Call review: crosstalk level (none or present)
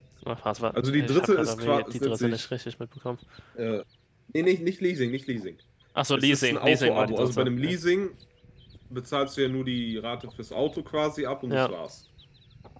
present